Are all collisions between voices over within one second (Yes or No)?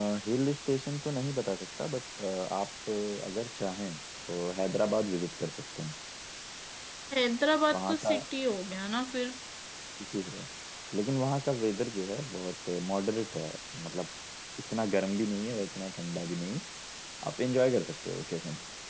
Yes